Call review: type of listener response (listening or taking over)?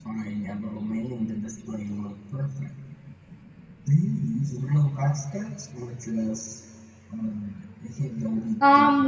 taking over